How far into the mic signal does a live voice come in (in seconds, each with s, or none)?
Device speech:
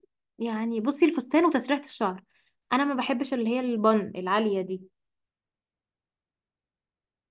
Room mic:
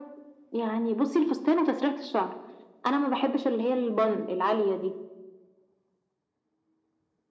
none